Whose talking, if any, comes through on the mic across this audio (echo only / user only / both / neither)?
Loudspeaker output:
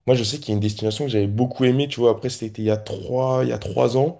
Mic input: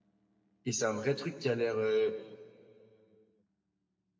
user only